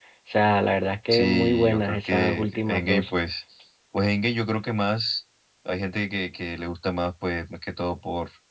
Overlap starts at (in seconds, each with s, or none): 1.1 s